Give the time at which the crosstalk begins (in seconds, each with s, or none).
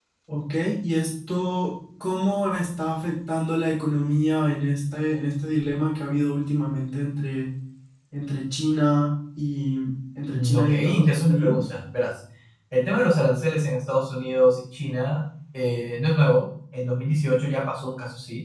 10.3 s